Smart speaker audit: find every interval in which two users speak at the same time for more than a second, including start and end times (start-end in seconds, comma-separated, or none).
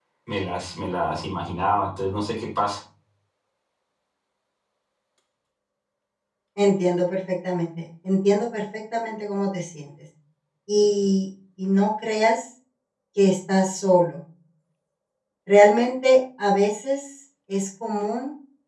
none